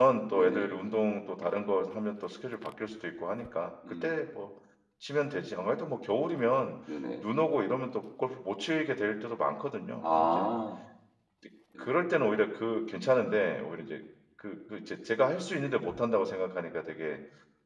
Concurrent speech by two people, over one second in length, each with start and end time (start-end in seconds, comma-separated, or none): none